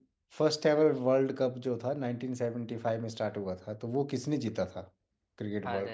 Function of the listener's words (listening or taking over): taking over